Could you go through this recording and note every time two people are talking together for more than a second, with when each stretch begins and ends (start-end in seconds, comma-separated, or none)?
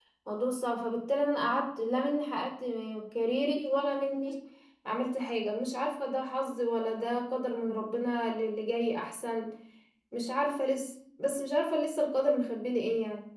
none